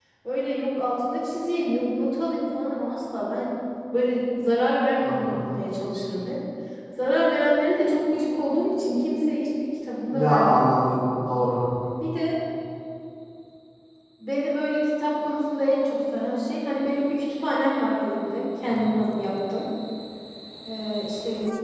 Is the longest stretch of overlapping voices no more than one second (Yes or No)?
Yes